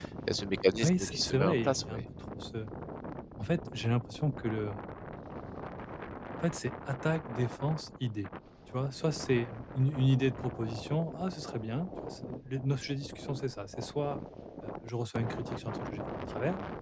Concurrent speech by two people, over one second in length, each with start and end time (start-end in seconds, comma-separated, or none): 0.8-2.0